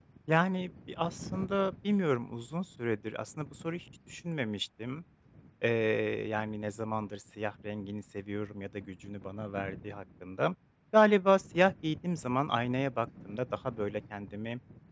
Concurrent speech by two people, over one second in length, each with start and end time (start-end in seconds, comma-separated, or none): none